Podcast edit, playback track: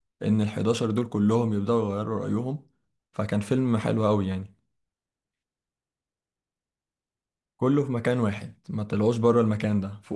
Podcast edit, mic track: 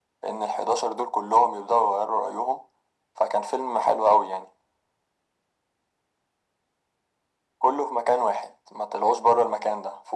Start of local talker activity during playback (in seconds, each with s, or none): none